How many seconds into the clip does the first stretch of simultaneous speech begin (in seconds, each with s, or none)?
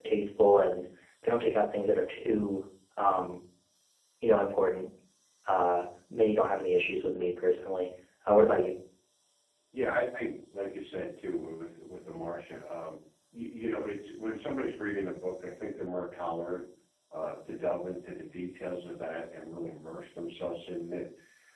none